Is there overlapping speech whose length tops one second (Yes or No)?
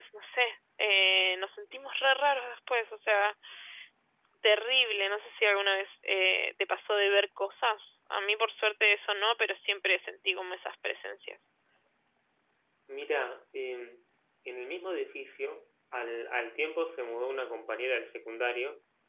No